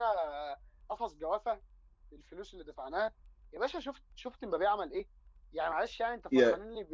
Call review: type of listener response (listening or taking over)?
listening